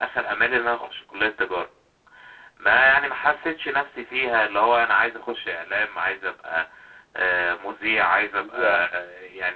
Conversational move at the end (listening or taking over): listening